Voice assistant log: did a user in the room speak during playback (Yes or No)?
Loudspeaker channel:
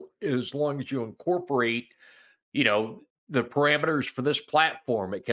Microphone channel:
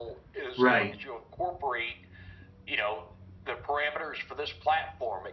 Yes